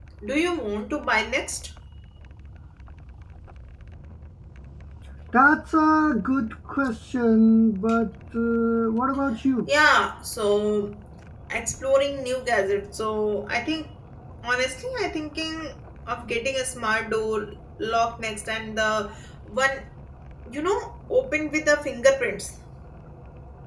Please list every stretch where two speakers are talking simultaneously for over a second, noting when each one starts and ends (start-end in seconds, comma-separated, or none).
none